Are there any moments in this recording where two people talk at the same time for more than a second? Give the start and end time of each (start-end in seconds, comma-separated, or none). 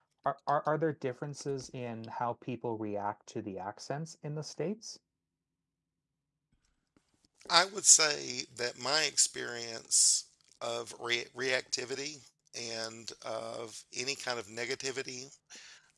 none